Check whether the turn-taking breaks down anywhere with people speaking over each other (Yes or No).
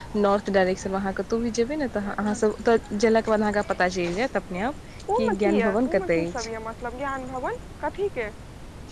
Yes